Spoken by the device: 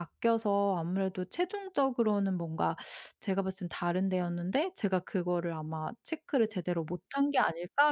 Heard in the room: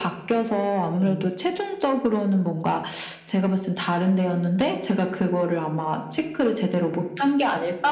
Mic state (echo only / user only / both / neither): both